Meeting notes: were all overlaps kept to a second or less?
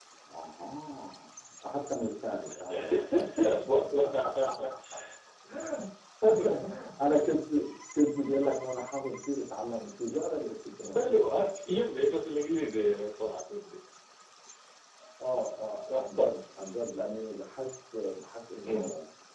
Yes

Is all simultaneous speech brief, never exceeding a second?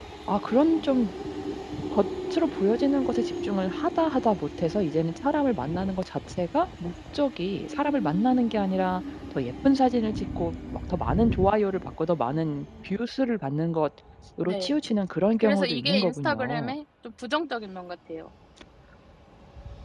No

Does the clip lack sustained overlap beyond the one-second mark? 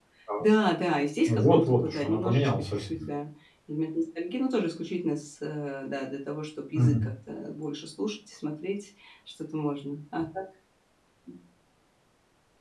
No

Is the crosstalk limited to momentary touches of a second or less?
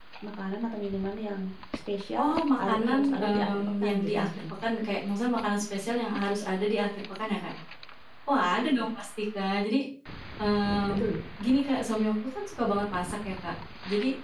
No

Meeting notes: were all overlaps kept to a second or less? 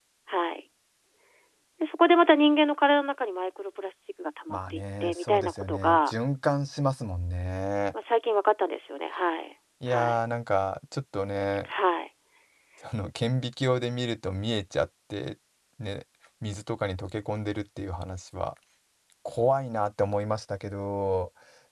No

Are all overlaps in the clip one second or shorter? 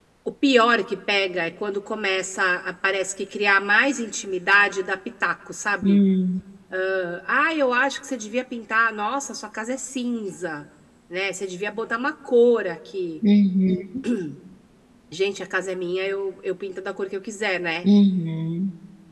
Yes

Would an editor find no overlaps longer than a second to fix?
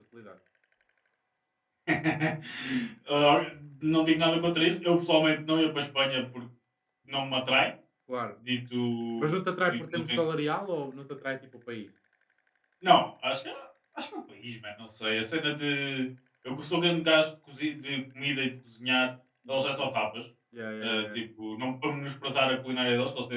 Yes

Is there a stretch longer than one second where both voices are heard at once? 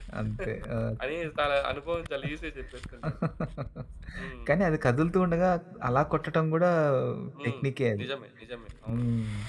No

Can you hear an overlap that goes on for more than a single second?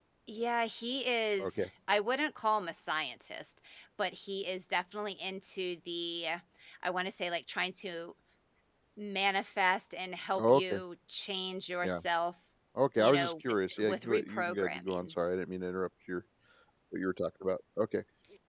Yes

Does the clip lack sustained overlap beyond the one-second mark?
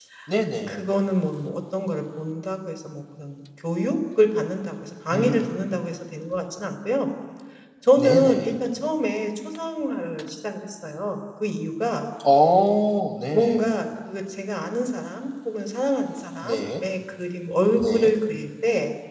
Yes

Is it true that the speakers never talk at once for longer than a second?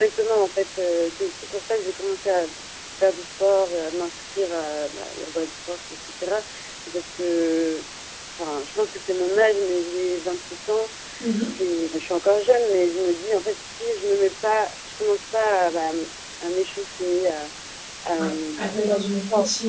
No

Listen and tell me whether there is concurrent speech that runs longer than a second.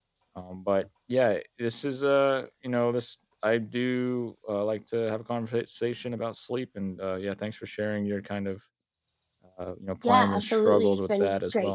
Yes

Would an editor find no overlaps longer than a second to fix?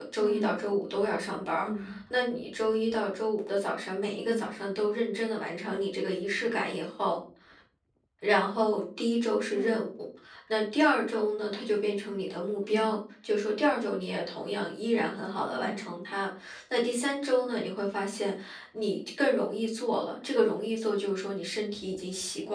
Yes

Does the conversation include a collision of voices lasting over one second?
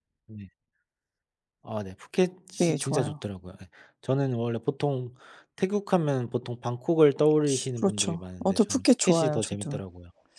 Yes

